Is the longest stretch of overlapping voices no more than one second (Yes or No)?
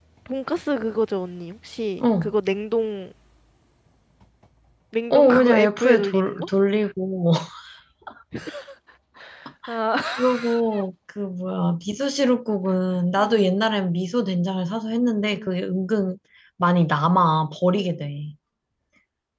No